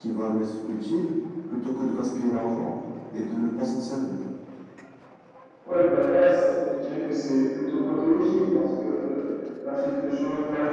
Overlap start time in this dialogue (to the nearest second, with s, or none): none